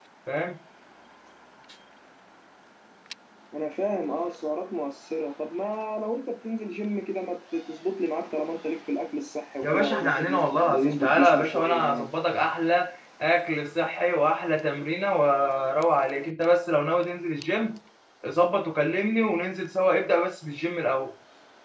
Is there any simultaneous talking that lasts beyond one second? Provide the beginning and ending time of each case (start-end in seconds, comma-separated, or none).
9.6-12.1